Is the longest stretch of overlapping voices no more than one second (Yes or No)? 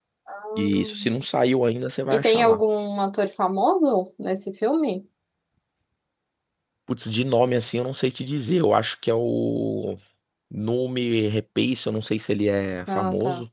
Yes